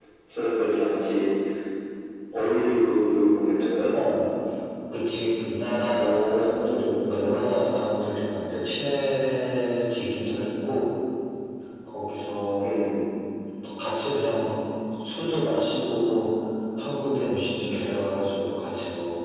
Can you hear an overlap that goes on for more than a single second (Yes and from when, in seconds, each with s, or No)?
Yes, from 5.9 s